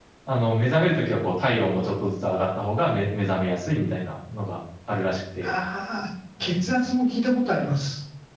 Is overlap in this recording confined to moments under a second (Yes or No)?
Yes